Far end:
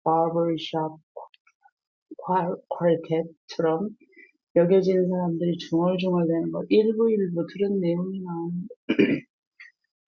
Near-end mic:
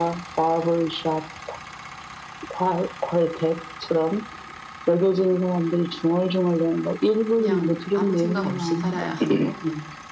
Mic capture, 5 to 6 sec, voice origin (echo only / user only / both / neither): echo only